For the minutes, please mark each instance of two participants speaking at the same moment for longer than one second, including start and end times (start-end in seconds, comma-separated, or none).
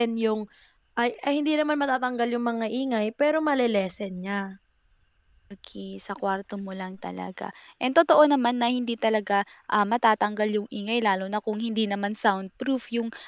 none